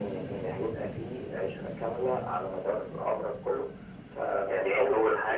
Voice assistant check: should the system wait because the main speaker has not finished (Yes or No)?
No